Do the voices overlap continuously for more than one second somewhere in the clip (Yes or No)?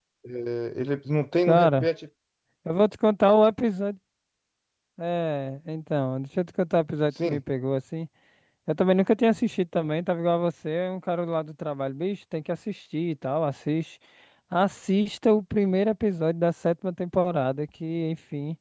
No